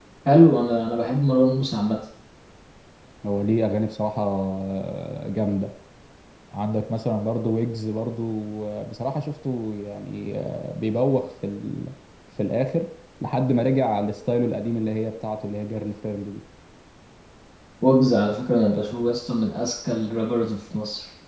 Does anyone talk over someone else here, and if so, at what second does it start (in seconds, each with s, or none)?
none